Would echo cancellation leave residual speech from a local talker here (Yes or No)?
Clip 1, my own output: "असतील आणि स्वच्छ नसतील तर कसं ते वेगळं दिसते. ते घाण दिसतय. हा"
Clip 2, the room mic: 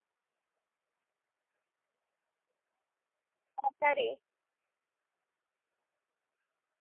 Yes